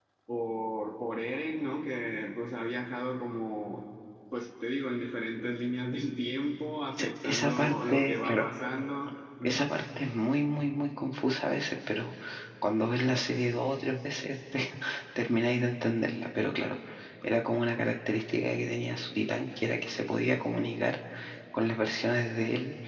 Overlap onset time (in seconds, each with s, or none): 7.0 s